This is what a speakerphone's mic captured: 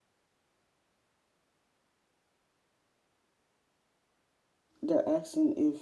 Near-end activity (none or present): present